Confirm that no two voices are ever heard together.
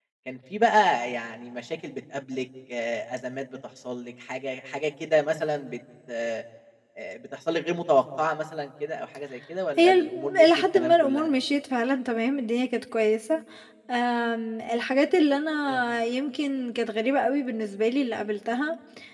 No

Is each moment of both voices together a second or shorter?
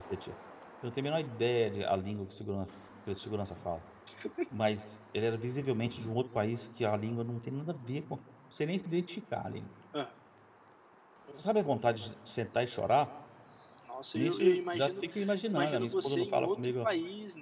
No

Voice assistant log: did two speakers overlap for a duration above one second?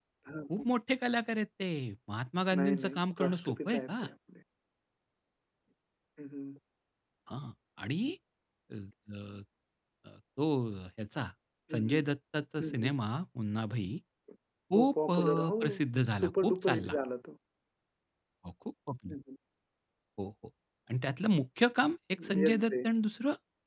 Yes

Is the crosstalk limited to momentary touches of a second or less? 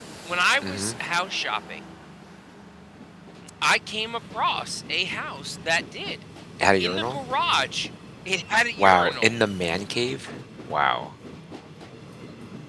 Yes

